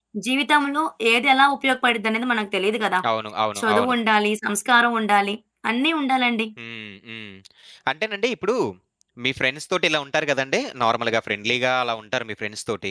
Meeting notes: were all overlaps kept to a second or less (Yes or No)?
Yes